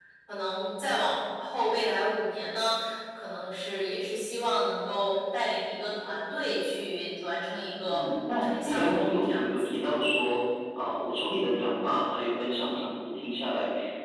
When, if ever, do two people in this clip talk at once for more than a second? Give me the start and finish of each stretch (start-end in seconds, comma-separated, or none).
7.9-9.7